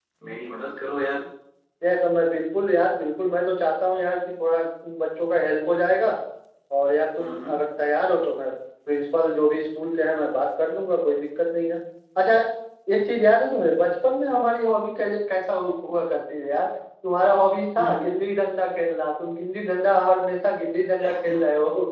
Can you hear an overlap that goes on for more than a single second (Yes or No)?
No